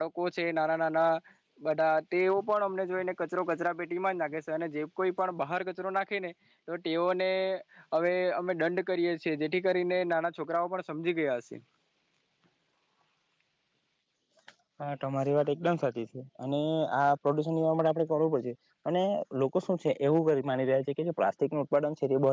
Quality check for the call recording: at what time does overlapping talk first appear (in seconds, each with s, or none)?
none